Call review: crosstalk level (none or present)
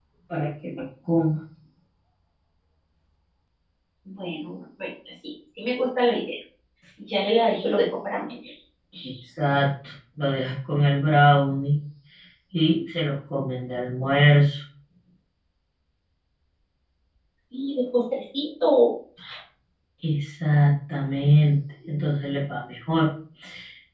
none